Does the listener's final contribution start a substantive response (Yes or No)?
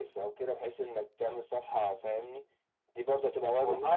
Yes